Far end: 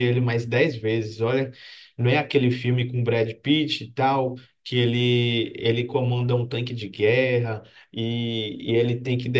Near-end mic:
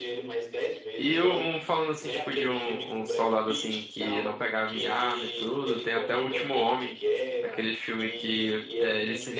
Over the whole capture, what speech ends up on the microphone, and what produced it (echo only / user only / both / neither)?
both